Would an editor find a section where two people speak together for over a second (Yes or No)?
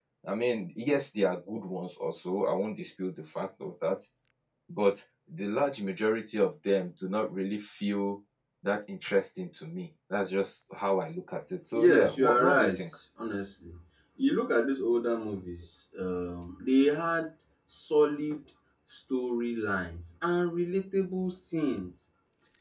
Yes